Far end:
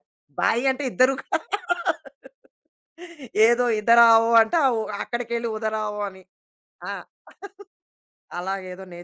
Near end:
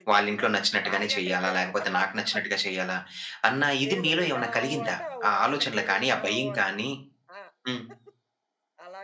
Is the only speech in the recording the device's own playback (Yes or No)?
No